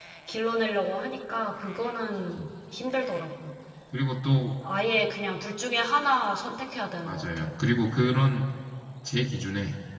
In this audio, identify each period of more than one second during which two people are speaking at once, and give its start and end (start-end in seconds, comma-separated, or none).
none